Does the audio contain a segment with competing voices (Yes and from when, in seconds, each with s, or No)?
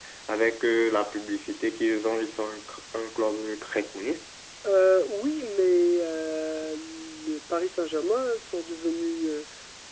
No